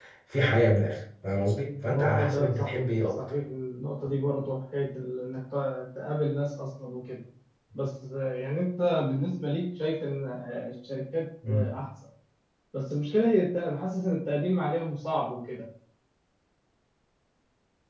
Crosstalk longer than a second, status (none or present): present